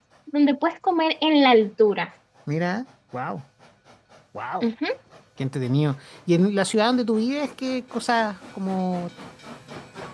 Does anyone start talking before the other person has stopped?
No

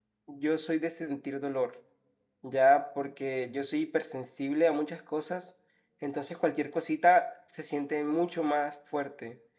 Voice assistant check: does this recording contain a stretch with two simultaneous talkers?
No

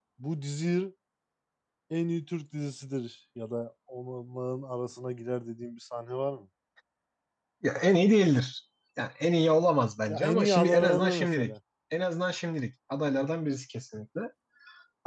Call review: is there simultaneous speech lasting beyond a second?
Yes, from 10.1 s

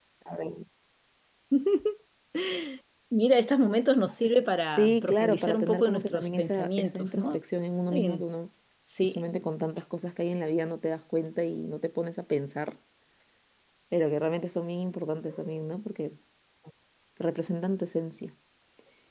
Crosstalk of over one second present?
Yes, from 4.8 s

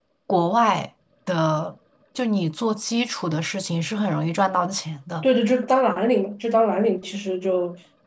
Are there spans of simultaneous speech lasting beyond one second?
No

